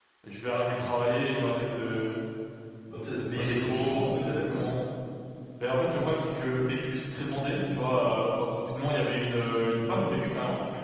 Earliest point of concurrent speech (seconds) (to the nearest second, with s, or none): 3 s